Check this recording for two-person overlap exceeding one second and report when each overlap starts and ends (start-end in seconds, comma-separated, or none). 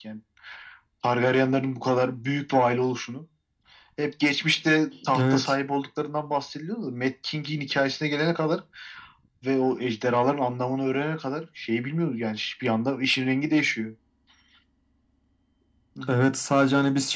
none